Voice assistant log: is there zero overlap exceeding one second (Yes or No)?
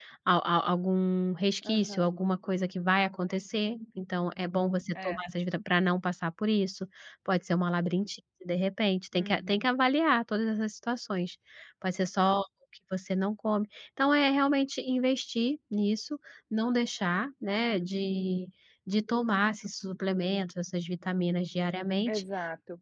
Yes